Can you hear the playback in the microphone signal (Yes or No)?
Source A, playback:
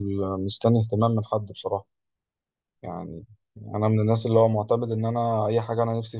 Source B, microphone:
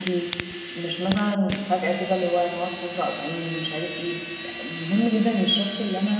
No